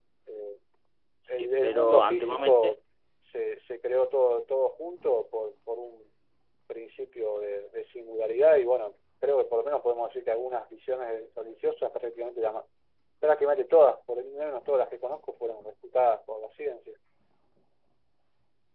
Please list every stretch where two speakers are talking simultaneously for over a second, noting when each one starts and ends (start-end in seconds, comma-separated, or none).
1.4-2.7